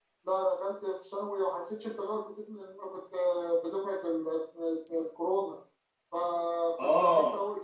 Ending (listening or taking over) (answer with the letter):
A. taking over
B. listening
B